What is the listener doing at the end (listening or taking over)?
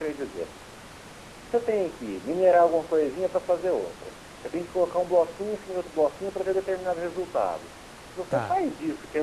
listening